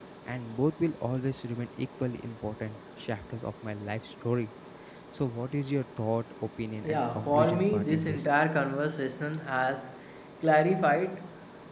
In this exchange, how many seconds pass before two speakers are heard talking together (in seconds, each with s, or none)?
6.8 s